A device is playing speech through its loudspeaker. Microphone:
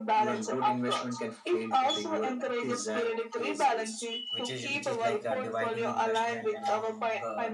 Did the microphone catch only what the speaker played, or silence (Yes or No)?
No